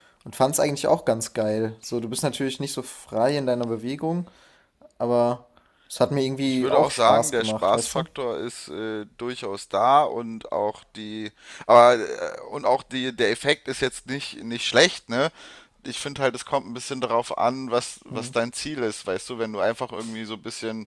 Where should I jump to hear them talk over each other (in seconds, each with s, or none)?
6.5 s